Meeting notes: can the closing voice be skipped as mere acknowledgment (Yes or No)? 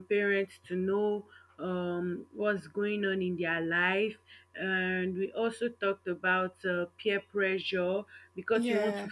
Yes